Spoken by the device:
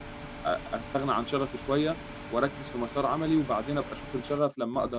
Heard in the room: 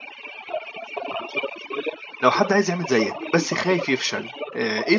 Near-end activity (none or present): present